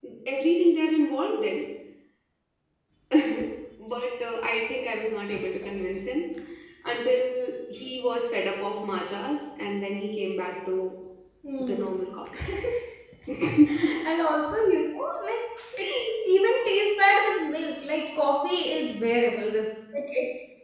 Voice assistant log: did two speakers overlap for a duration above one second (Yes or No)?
No